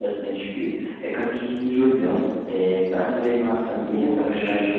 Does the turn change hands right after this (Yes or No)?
No